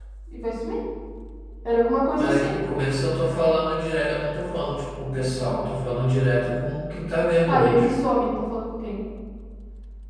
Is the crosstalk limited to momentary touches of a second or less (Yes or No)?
Yes